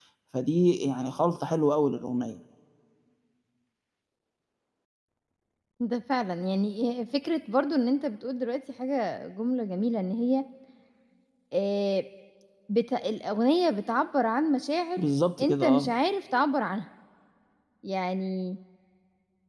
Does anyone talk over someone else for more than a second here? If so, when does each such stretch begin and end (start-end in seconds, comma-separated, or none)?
none